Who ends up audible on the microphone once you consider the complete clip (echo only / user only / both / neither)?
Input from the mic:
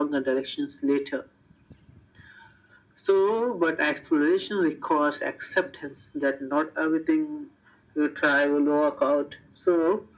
echo only